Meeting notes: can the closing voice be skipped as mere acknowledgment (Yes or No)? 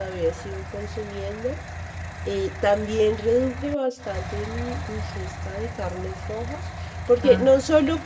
Yes